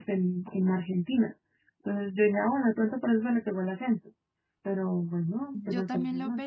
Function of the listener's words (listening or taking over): taking over